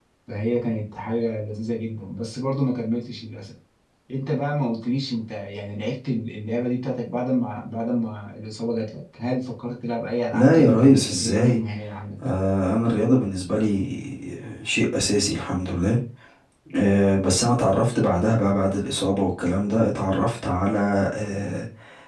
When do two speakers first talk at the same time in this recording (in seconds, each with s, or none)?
10.3 s